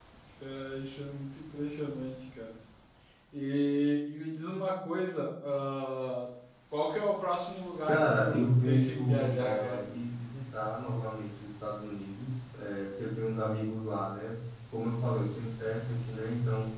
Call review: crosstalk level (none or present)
present